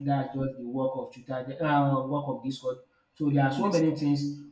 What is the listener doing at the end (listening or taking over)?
listening